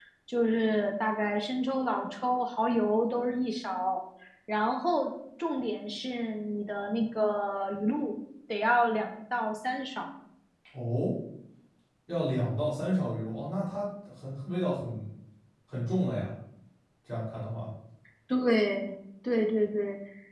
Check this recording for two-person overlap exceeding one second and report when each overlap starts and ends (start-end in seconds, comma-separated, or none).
none